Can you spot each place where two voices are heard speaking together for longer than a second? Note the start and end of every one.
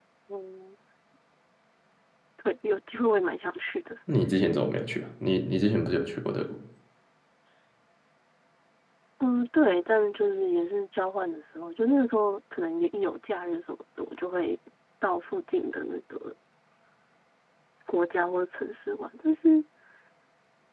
none

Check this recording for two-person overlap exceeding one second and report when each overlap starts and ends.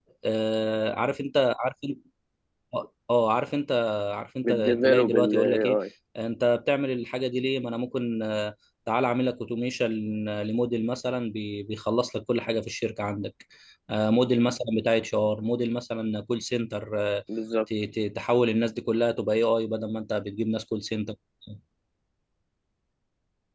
4.4-5.8

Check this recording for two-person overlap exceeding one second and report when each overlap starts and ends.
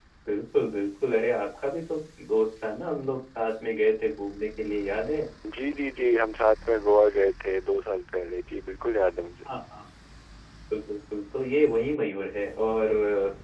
none

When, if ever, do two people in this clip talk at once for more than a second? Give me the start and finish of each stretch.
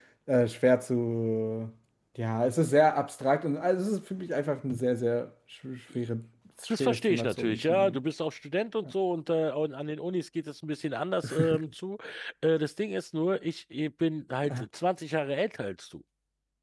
6.7-8.0

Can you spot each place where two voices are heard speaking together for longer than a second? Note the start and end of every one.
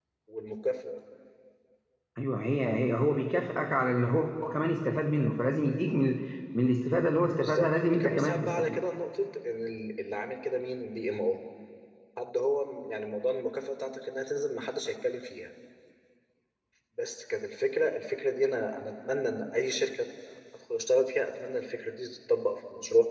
7.4-8.8

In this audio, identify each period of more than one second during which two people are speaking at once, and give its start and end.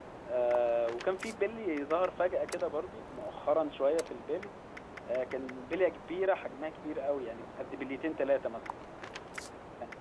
none

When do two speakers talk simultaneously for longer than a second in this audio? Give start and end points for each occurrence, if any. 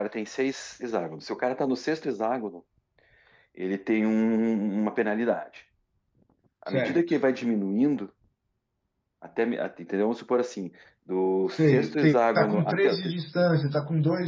11.5-13.1

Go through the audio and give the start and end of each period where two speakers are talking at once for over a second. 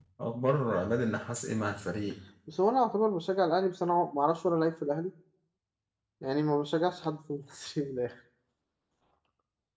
none

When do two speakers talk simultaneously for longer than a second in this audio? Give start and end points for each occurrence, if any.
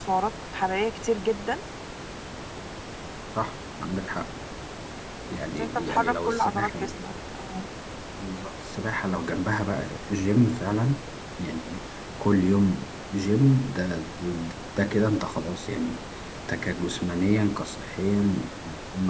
5.6-6.9

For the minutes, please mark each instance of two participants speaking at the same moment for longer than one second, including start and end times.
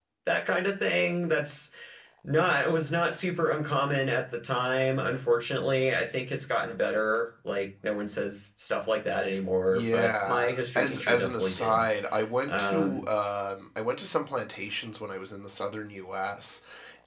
9.7-11.8

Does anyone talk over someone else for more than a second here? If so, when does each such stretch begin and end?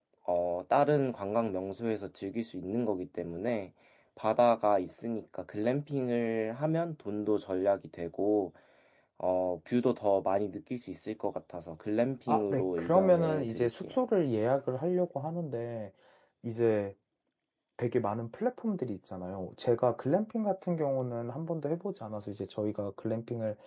12.3-14.0

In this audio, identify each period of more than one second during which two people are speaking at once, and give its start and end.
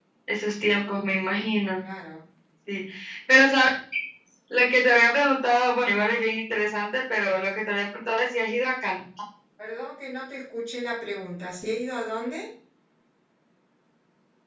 none

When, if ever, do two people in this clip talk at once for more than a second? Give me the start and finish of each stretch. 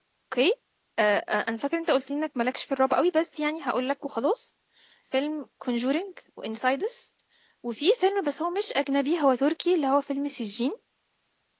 none

